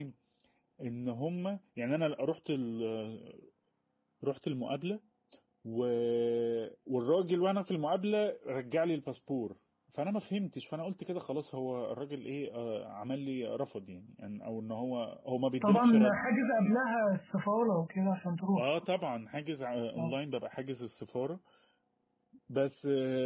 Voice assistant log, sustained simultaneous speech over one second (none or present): none